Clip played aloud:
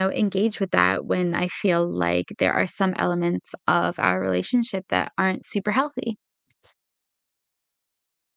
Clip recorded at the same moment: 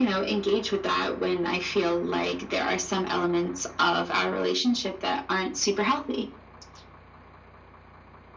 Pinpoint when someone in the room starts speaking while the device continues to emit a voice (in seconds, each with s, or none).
none